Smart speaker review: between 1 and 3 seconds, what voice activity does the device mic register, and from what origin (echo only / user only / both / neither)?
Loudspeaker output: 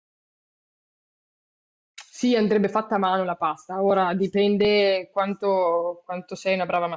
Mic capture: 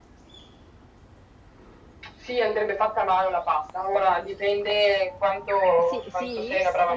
echo only